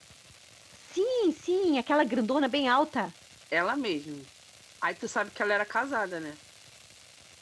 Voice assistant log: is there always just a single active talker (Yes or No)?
Yes